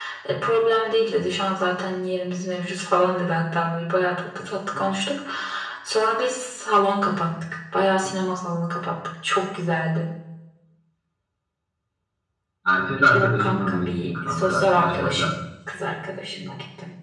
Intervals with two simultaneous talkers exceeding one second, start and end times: 13.1-15.3

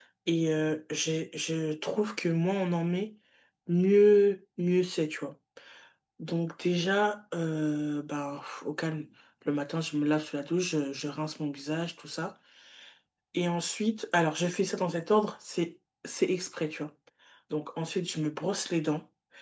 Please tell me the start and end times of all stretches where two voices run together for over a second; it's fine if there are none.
none

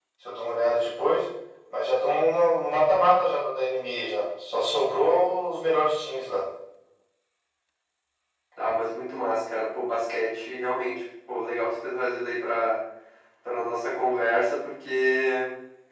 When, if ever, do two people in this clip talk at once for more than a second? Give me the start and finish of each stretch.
none

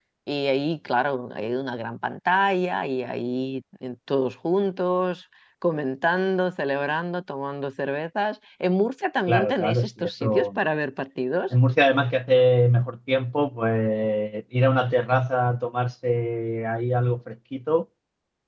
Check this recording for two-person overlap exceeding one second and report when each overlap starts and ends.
9.3-10.6

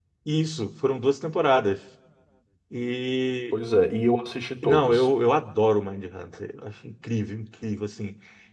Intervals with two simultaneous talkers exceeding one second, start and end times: none

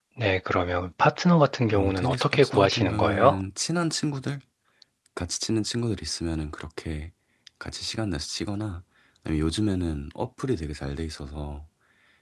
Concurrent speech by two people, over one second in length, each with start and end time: 1.7-3.4

